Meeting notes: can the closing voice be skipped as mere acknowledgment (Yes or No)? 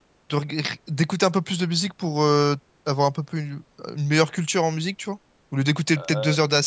Yes